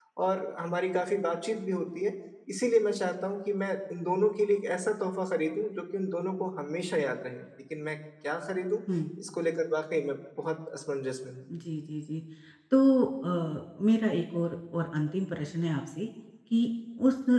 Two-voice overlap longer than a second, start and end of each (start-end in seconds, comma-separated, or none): none